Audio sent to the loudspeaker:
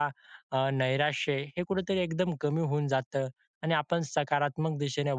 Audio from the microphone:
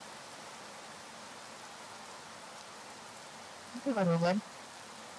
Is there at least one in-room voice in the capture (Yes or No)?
Yes